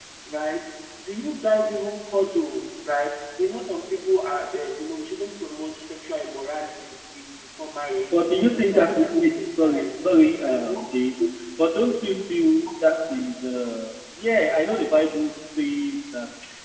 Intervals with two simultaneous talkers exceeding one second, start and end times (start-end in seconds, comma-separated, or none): 8.1-10.1